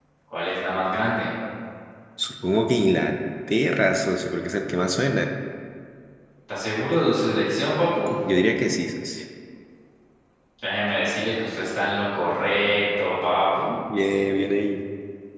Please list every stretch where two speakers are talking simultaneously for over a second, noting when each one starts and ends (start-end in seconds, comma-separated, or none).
none